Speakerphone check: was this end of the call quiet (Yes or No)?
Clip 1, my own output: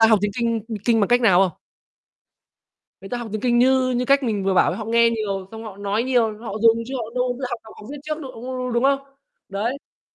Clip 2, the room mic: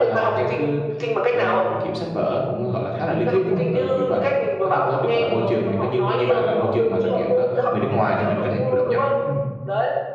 No